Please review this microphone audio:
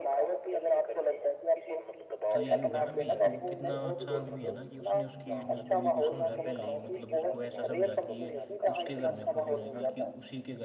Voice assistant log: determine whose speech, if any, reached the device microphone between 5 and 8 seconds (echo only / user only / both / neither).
both